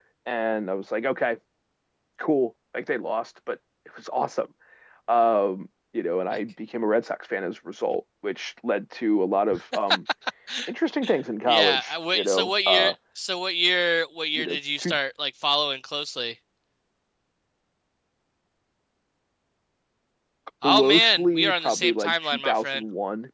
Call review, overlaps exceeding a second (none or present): present